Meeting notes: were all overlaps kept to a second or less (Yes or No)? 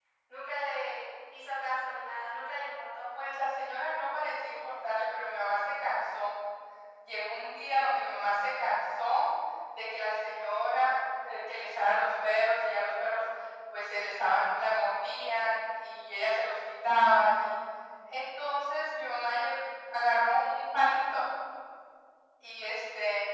Yes